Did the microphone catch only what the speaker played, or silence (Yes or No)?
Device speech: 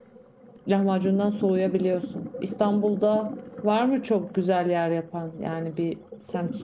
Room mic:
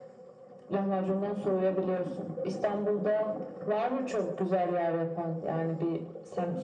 Yes